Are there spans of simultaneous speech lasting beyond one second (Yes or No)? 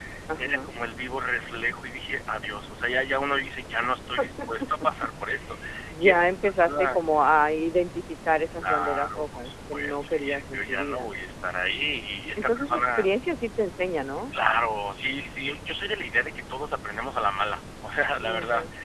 Yes